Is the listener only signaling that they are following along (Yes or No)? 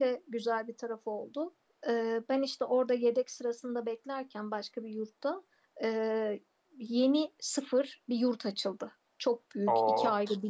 Yes